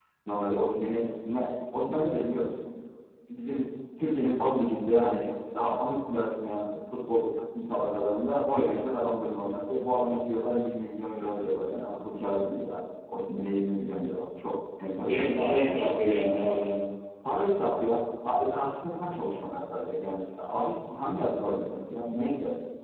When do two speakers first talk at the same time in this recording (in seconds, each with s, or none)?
15.0 s